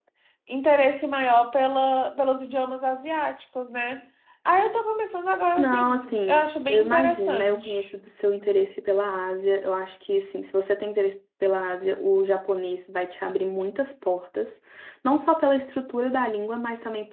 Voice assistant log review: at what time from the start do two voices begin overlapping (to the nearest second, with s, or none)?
6 s